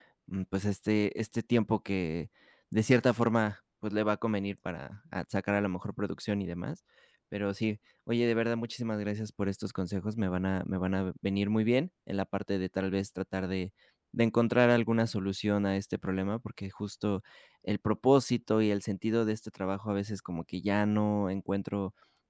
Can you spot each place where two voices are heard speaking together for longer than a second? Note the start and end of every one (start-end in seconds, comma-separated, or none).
none